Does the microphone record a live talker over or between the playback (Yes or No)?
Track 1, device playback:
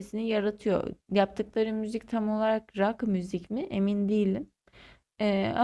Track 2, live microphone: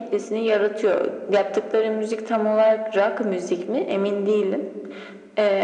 No